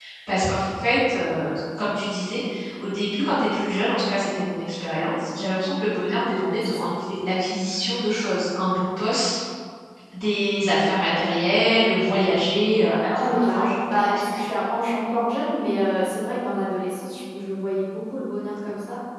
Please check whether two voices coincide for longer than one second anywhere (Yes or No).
Yes